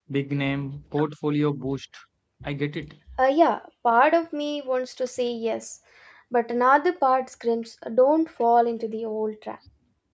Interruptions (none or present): none